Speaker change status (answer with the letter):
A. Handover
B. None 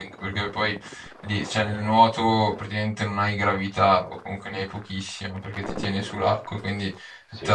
B